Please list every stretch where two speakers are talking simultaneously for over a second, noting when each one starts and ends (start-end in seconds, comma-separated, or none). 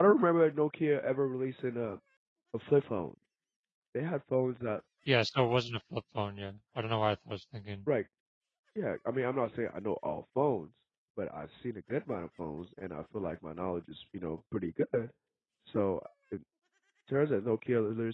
none